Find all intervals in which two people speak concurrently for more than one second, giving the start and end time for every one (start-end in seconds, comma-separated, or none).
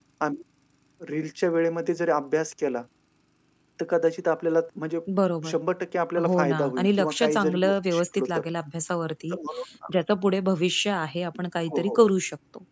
6.3-8.4